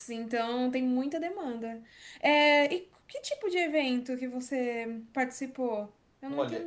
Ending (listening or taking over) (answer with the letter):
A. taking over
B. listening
A